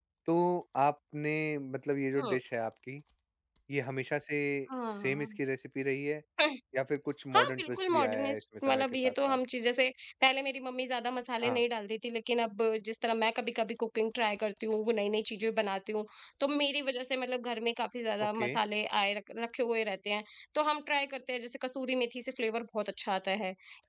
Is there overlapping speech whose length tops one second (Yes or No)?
Yes